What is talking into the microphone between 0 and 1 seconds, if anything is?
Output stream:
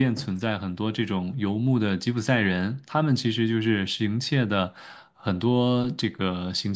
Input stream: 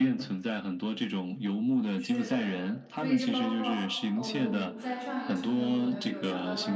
echo only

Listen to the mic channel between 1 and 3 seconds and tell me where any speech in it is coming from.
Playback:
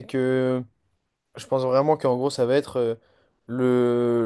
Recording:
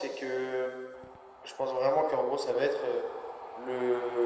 echo only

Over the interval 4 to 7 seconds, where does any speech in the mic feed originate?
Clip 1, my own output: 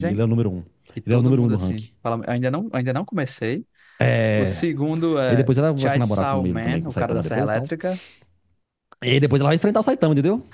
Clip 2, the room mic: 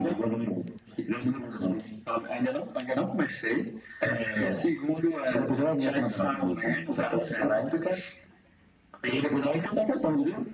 echo only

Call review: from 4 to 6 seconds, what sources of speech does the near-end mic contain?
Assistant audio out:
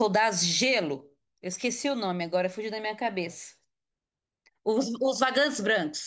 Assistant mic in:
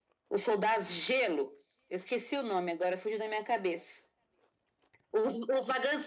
echo only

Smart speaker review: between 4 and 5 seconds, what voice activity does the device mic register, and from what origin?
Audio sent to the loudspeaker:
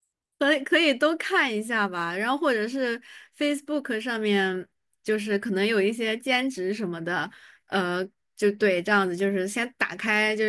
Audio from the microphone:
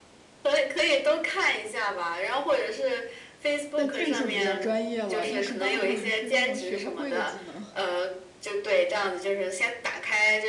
both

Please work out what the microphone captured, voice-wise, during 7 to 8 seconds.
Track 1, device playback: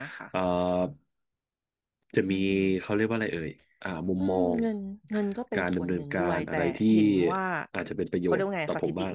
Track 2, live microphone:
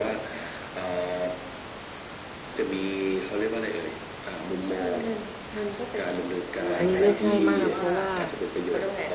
both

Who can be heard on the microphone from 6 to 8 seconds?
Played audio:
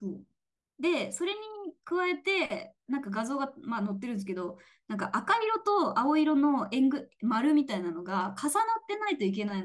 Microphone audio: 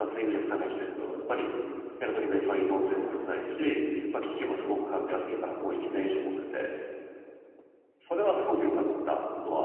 user only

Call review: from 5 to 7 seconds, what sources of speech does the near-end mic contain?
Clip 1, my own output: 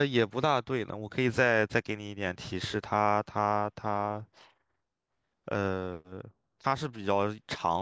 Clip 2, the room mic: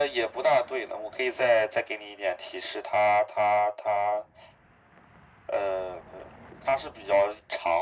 echo only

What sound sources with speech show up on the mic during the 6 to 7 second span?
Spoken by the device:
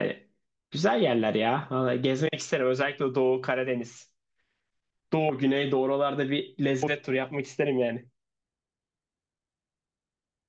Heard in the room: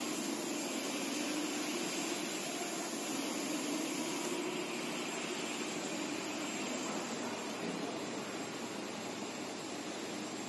neither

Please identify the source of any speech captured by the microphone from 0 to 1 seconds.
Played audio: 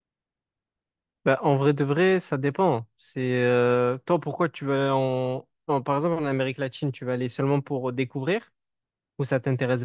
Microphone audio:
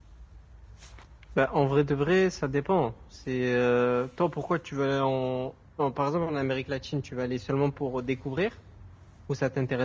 neither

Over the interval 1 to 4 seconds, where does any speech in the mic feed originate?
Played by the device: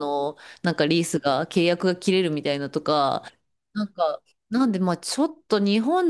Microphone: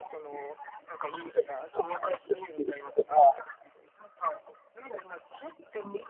echo only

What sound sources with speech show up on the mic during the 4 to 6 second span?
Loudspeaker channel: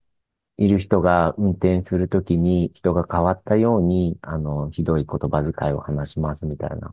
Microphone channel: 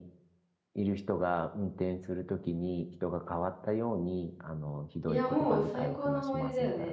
both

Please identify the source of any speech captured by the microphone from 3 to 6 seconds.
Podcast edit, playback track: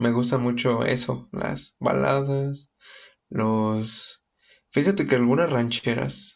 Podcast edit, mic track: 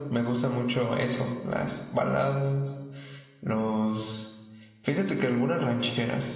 echo only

